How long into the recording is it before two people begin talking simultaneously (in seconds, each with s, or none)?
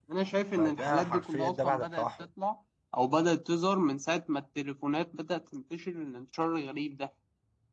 0.6 s